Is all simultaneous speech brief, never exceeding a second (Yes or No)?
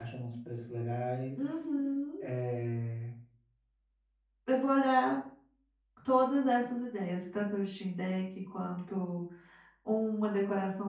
Yes